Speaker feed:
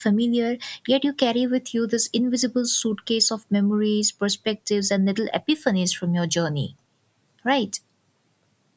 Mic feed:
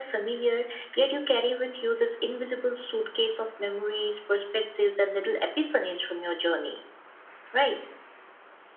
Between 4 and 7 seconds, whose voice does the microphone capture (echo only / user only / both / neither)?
echo only